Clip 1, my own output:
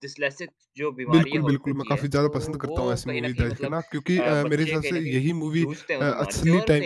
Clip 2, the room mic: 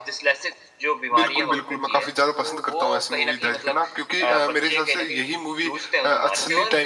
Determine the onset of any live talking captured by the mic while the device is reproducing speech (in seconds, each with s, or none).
none